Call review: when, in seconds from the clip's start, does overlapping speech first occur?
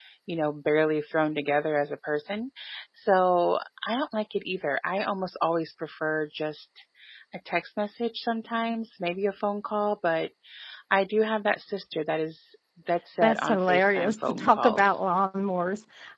13.2 s

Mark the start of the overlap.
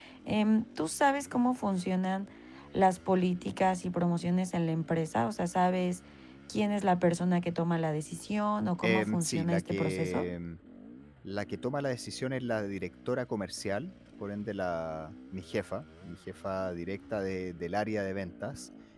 8.8 s

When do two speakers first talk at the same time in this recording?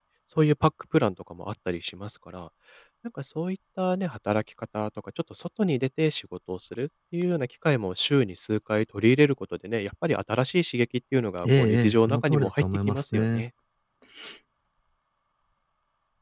11.4 s

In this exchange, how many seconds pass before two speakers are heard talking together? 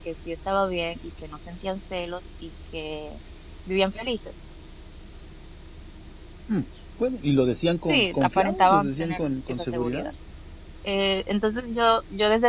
7.9 s

